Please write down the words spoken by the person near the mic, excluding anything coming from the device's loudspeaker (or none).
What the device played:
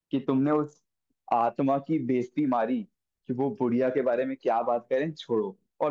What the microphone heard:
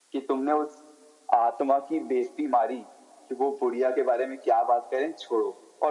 none